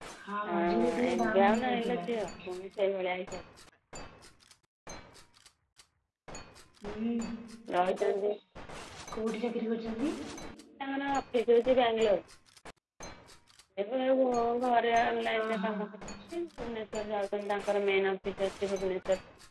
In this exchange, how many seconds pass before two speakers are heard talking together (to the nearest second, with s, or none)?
1 s